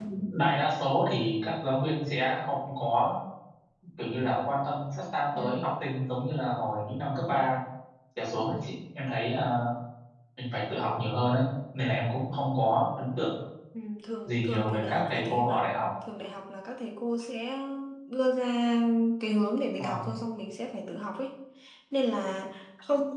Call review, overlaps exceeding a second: present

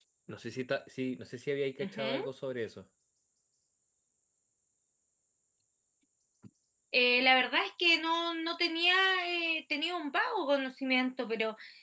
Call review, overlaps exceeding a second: none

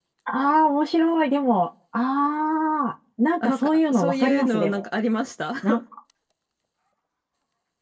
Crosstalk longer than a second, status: present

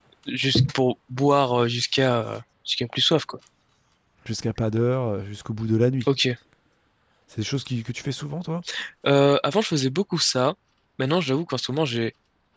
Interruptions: none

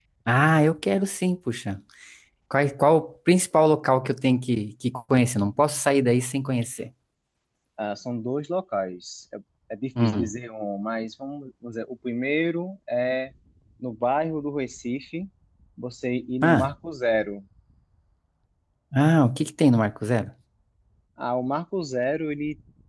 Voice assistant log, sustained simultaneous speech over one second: none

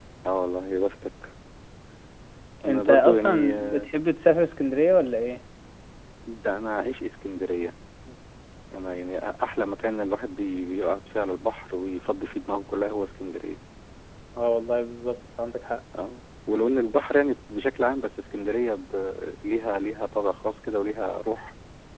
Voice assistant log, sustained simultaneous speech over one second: present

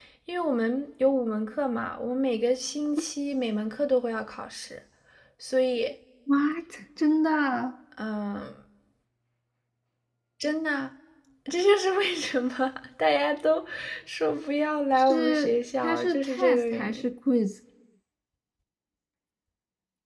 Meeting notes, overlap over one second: present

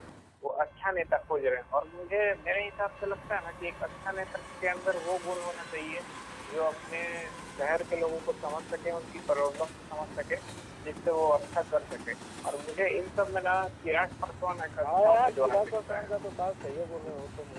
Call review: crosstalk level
present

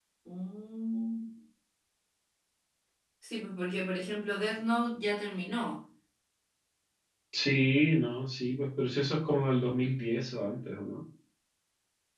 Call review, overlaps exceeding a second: none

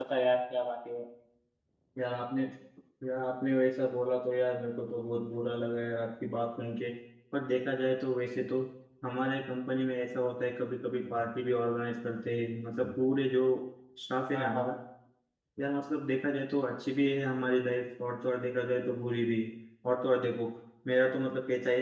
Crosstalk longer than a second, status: none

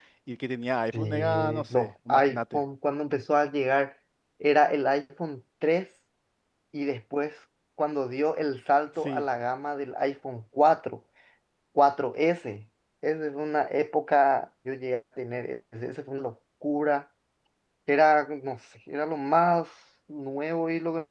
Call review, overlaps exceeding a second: present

